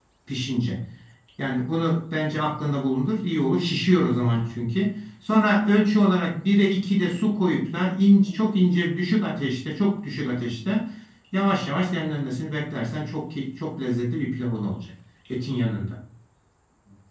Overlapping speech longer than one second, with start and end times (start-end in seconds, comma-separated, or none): none